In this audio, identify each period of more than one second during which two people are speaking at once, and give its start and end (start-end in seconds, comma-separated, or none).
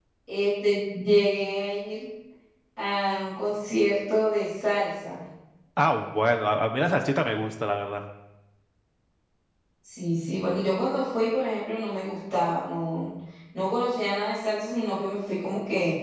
none